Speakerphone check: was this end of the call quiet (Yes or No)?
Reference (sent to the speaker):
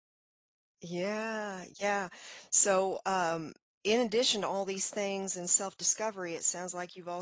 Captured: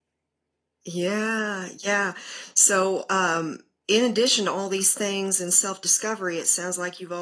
Yes